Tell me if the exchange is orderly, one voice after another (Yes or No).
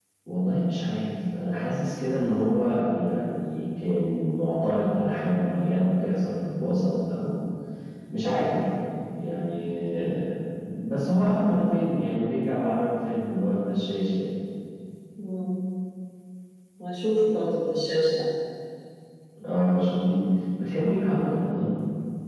Yes